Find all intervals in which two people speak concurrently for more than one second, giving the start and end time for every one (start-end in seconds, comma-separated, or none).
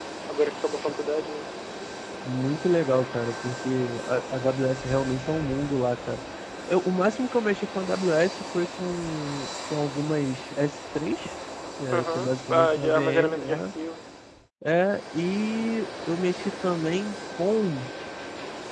11.9-13.6